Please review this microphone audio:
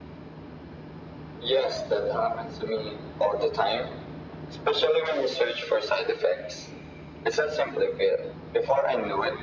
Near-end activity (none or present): none